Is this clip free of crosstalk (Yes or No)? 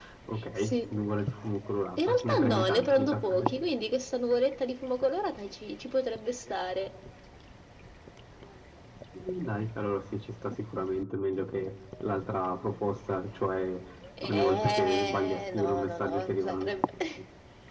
No